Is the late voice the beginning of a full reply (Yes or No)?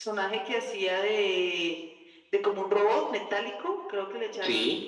No